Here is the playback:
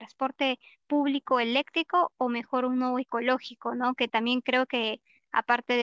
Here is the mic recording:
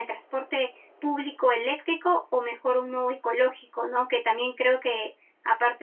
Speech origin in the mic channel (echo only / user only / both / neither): echo only